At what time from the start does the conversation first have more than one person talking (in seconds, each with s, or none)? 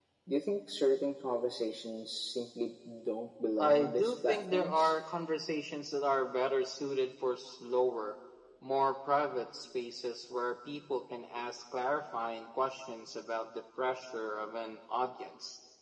3.6 s